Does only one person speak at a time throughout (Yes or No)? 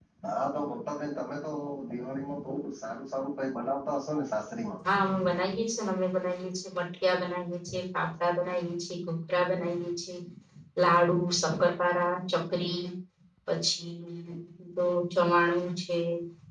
Yes